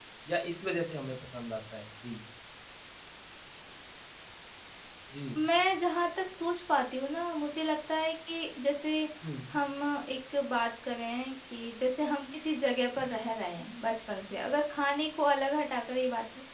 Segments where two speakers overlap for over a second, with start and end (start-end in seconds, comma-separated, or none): none